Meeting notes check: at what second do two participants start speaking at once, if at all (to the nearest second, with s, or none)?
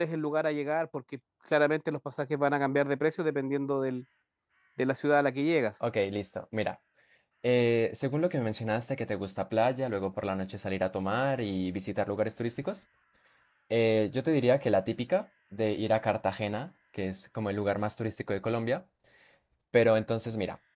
none